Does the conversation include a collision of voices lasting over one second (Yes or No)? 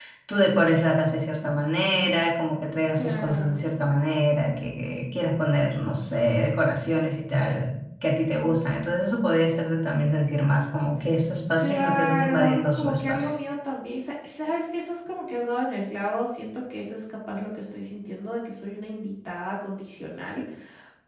Yes